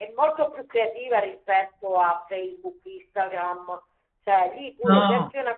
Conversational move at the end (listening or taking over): listening